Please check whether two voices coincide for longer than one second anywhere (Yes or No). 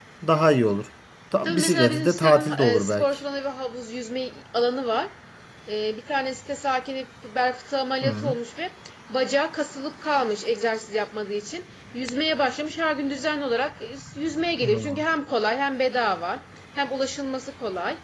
Yes